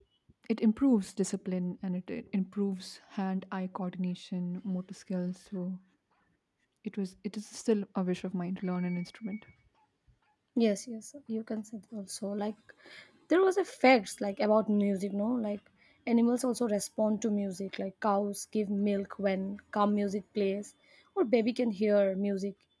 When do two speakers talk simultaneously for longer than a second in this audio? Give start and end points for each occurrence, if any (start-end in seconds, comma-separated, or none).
none